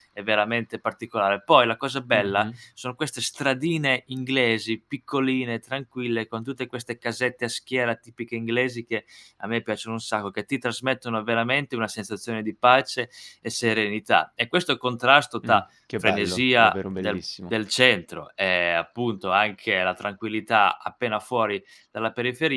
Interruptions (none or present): present